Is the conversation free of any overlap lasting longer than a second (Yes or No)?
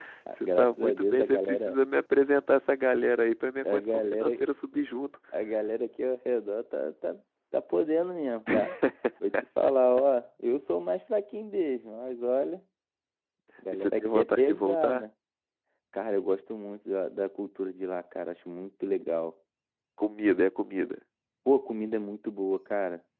No